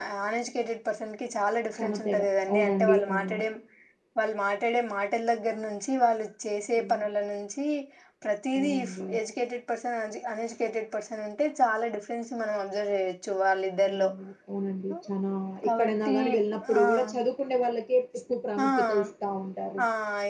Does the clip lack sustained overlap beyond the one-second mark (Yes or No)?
No